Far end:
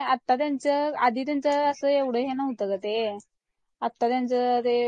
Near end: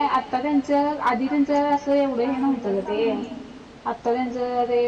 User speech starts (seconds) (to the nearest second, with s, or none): 2 s